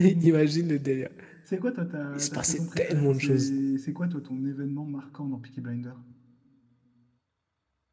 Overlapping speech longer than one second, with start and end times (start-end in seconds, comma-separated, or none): 2.1-3.5